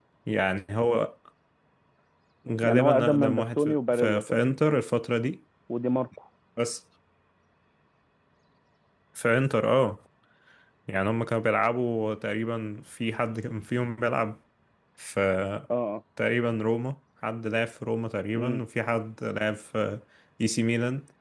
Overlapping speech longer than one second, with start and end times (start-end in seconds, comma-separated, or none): 2.6-4.4